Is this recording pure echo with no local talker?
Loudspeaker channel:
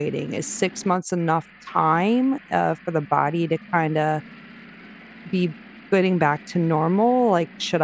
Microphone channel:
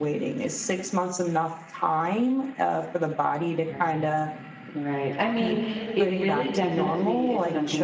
No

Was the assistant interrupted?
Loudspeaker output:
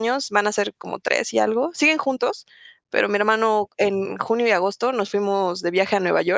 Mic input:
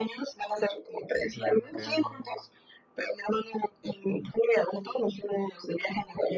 Yes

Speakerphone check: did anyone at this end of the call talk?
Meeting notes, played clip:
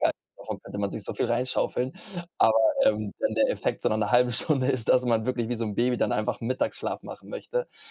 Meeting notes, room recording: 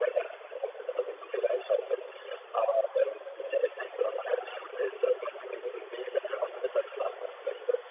No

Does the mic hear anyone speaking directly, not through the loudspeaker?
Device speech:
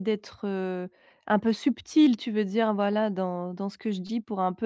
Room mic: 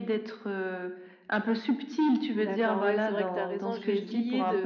Yes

